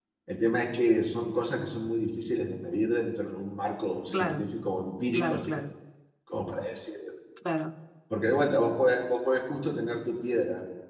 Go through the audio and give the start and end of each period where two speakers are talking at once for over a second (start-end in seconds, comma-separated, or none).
none